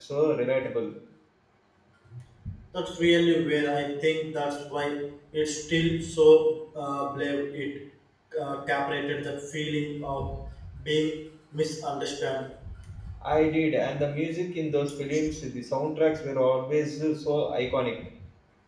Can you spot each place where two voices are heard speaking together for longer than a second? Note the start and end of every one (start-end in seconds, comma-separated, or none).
none